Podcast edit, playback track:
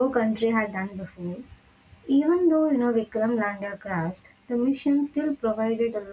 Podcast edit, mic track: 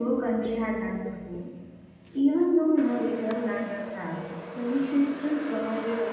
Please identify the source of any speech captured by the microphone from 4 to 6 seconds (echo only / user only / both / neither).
echo only